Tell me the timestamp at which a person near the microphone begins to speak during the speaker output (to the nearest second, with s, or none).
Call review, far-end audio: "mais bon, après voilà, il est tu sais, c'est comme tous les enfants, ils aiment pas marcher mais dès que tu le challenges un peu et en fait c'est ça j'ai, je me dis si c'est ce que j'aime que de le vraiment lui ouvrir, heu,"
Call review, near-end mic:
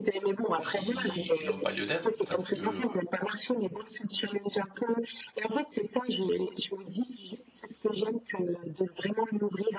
1 s